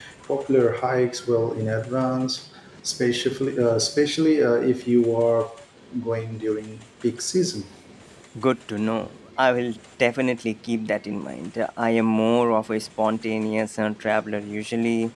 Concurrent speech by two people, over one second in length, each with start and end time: none

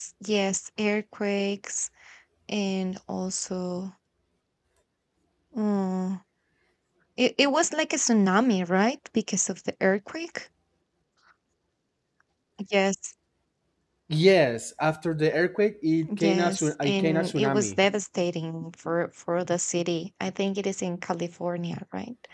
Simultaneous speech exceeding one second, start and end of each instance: 16.2-17.8

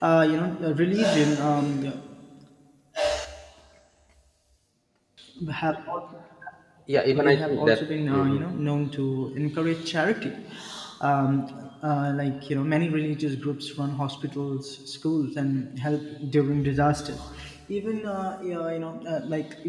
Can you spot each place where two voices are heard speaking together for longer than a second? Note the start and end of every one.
7.1-8.4

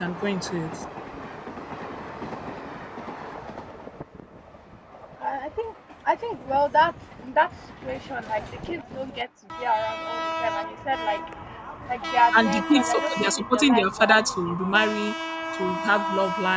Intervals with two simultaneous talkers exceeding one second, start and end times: 12.4-14.6

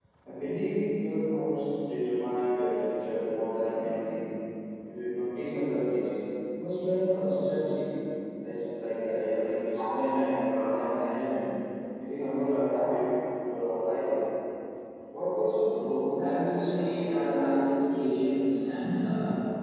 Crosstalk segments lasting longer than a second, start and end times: 16.2-17.8

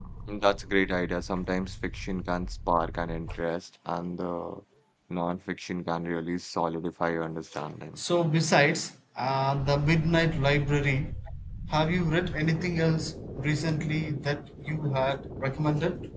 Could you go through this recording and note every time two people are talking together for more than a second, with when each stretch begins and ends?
none

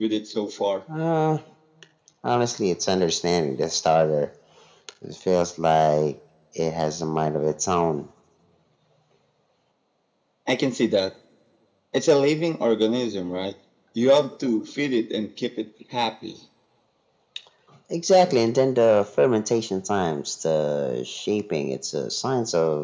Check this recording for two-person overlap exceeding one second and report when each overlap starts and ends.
none

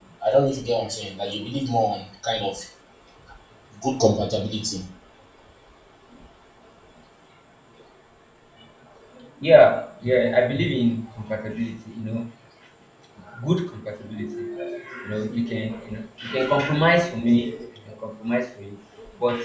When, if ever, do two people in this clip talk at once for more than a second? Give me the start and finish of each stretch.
none

